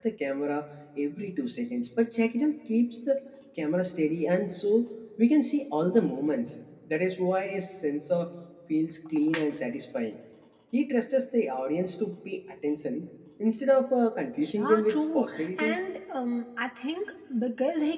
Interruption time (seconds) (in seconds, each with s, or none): 14.4 s